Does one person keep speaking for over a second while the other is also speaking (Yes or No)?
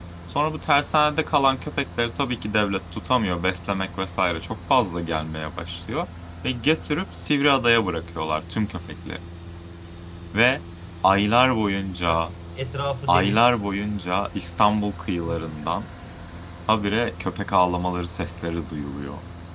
No